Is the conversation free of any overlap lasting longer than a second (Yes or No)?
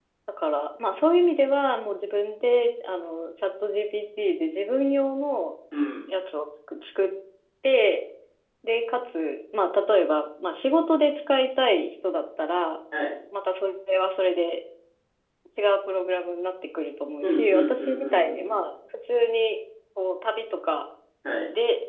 No